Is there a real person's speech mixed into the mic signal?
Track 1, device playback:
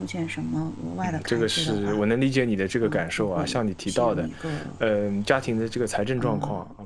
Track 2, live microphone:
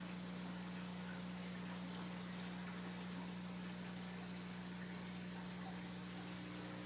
No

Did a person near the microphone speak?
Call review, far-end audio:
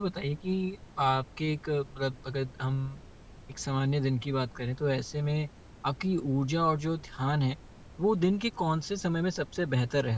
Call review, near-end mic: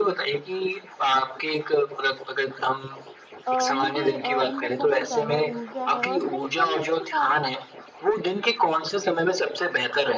Yes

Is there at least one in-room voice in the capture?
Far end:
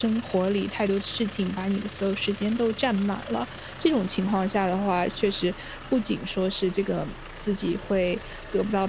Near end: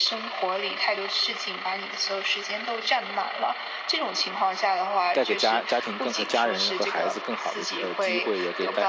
Yes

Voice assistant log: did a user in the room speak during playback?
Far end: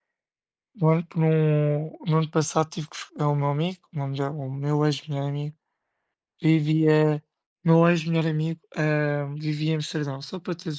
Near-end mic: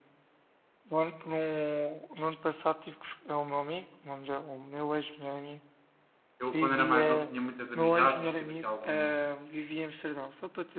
Yes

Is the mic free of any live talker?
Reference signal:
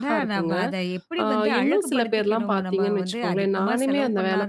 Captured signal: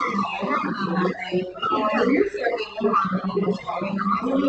Yes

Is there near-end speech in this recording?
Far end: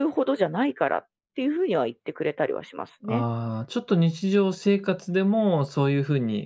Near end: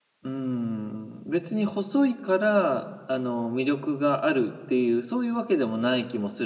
Yes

